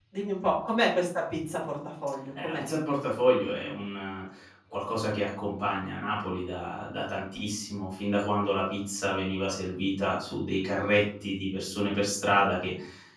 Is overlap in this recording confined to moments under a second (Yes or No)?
Yes